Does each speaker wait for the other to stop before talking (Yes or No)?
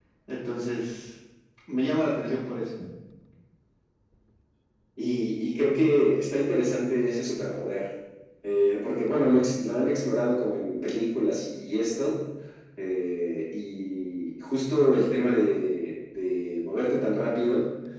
Yes